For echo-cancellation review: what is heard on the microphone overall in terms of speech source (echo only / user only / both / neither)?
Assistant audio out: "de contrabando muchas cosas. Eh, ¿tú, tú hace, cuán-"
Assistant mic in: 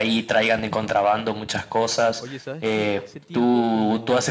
both